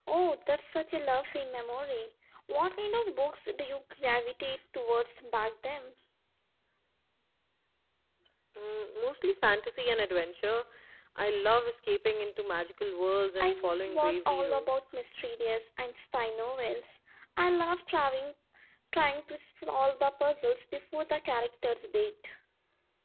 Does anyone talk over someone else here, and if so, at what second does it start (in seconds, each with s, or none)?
13.4 s